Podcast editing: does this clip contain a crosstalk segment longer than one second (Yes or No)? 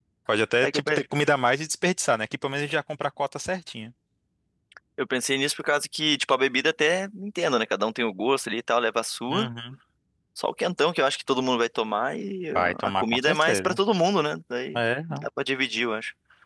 Yes